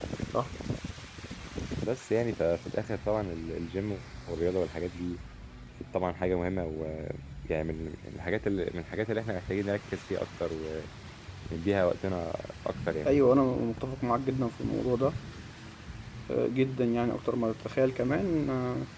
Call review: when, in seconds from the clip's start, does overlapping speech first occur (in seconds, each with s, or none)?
none